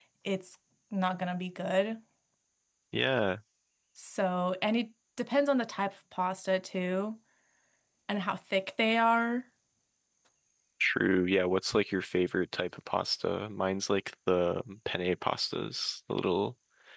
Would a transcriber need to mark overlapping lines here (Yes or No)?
No